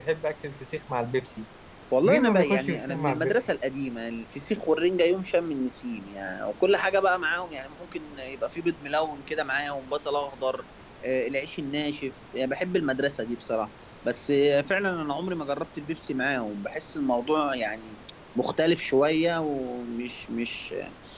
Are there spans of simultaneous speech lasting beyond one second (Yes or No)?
Yes